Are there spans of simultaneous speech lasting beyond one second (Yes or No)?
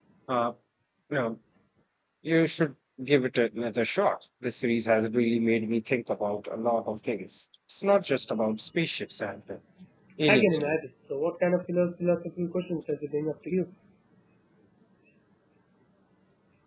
No